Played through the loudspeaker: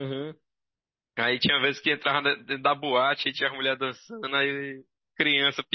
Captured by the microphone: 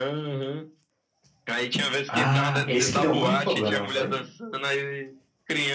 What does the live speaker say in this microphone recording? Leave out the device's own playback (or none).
Ah, esse que deu um monte de problema, não foi?